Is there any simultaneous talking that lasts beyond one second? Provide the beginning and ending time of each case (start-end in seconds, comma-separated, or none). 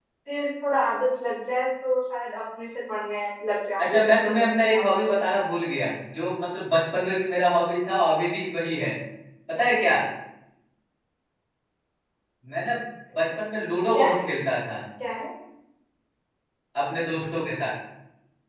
3.8-5.0